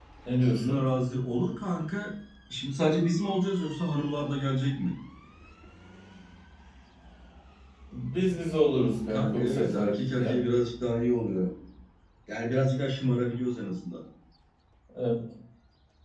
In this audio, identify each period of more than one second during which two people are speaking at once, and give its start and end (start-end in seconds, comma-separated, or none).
9.1-10.4